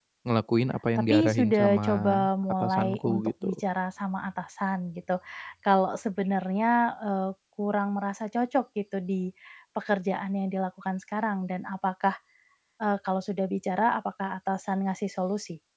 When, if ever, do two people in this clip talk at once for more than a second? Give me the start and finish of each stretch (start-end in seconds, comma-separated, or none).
1.0-3.5